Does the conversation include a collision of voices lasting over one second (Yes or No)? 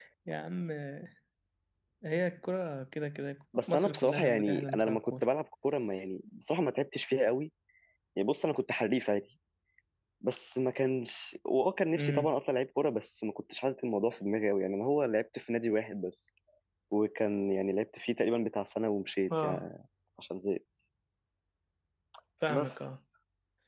Yes